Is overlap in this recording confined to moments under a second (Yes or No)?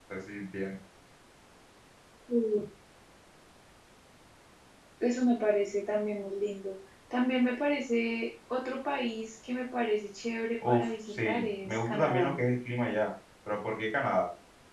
No